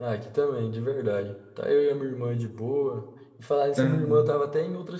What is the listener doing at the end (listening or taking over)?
listening